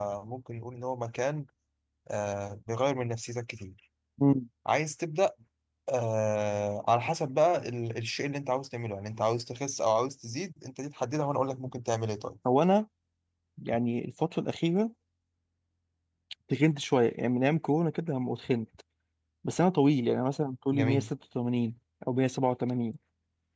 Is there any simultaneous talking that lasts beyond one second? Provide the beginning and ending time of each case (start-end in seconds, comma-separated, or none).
none